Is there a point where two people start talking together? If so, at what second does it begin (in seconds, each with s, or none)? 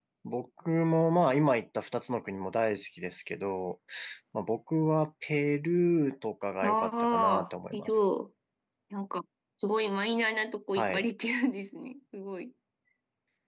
6.6 s